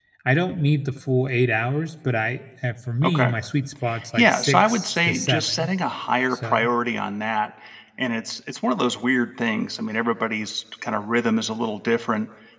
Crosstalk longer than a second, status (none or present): present